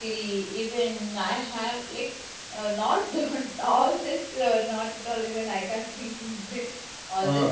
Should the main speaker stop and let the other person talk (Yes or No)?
No